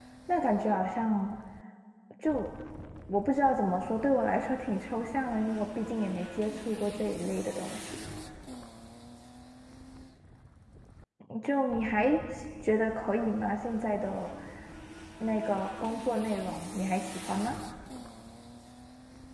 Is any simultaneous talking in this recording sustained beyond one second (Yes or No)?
No